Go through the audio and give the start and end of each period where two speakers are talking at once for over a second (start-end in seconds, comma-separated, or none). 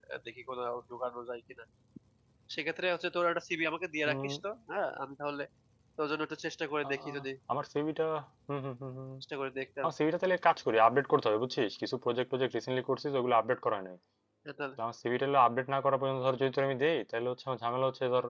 none